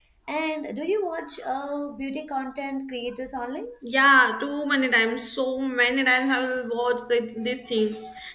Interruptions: none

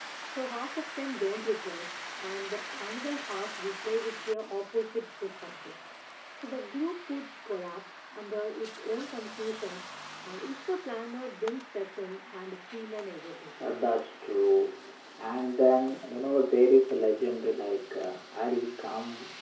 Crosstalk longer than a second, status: none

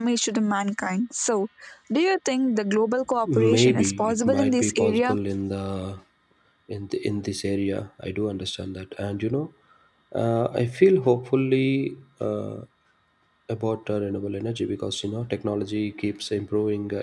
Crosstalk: present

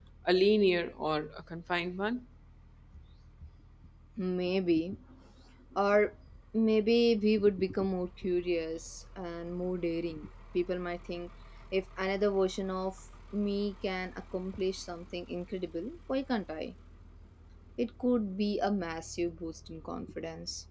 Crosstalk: none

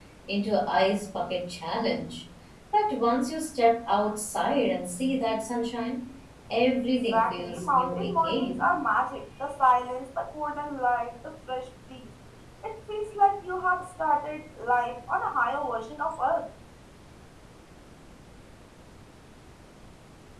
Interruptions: present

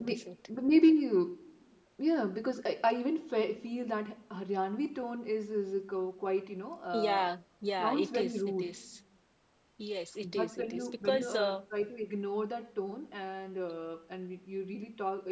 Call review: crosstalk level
present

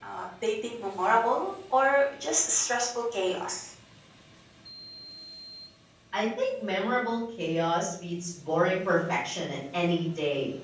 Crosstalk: none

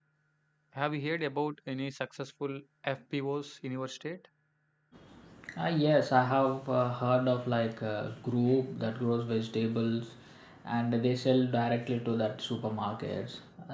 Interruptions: none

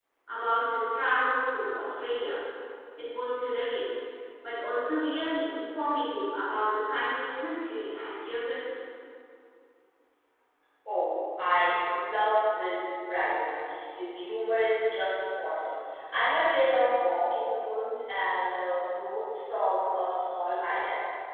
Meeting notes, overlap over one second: none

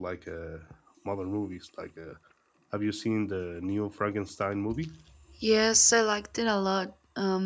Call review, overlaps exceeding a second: none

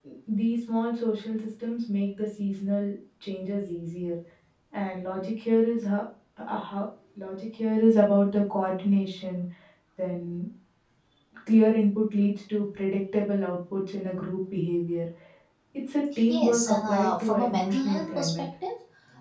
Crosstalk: present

